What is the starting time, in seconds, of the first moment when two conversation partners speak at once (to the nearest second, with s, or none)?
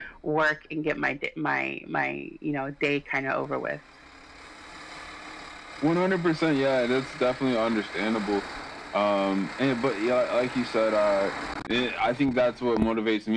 none